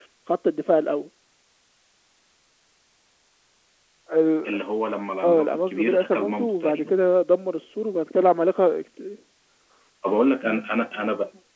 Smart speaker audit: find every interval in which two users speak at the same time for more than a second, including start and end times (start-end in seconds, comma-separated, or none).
5.2-6.9